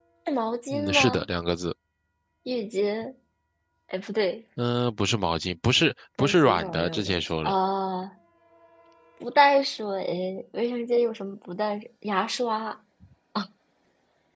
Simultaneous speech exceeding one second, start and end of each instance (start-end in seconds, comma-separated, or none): 6.2-7.5